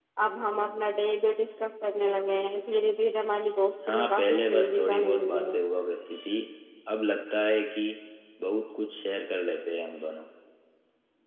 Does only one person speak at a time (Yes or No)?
No